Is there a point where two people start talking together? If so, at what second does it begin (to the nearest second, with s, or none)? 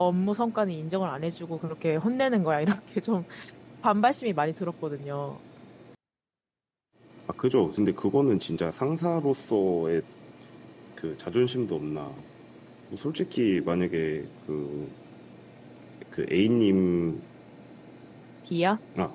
none